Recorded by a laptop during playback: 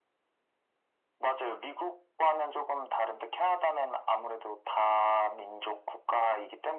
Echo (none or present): present